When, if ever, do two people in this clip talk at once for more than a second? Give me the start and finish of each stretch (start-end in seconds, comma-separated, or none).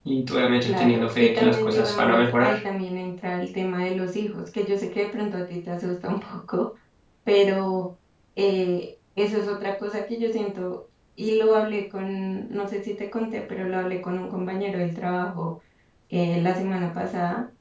0.6-2.5